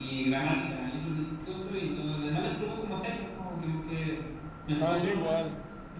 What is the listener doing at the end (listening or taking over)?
taking over